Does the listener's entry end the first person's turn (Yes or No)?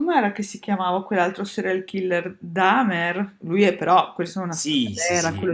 Yes